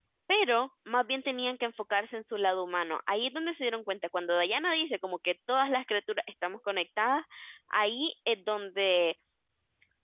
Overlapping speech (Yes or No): No